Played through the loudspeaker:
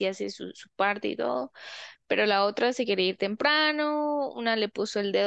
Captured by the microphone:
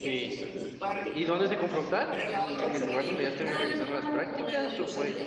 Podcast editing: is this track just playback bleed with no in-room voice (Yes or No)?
No